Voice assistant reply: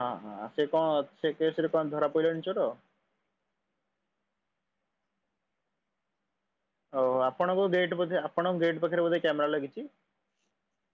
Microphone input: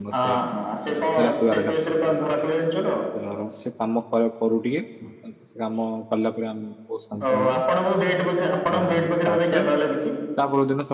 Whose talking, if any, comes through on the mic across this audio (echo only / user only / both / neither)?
both